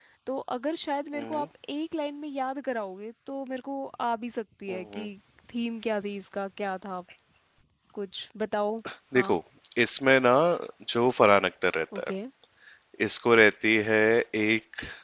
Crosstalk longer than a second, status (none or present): none